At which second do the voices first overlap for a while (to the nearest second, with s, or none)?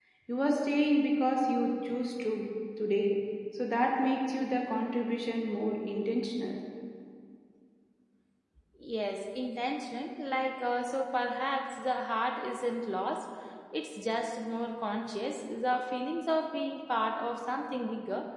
none